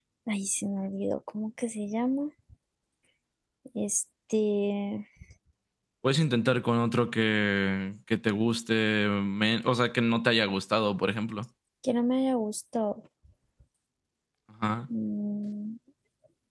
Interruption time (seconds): none

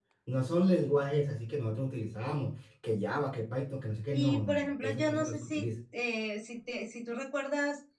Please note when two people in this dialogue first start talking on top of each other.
4 s

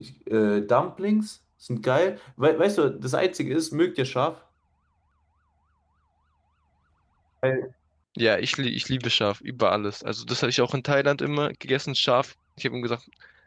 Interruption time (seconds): none

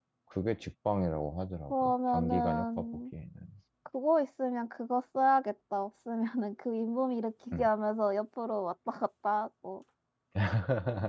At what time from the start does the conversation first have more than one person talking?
2 s

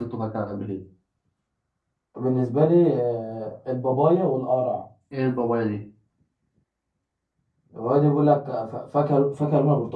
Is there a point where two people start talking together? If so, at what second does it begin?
none

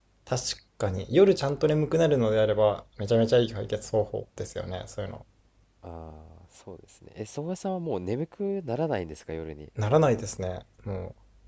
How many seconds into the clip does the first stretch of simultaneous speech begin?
none

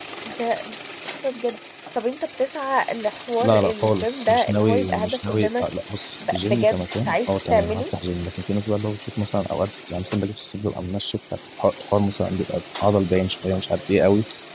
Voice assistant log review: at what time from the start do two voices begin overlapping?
3 s

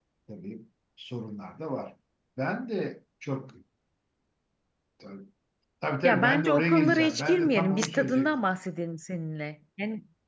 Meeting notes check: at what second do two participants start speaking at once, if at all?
6 s

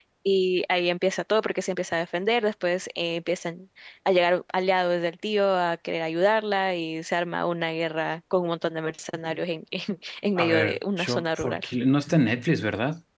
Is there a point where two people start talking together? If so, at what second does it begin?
10 s

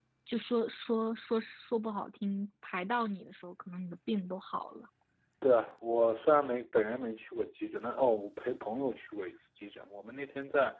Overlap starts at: none

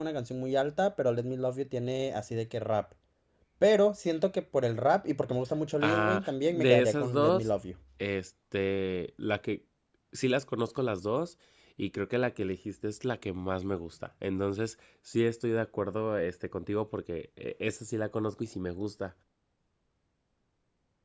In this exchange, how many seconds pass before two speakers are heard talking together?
6 s

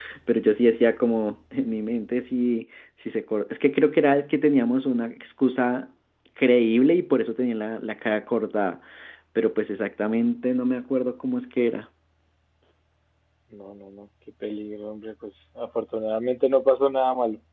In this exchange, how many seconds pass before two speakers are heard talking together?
none

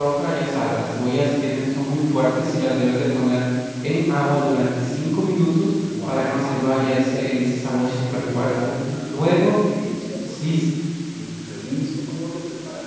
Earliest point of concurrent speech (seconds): 6 s

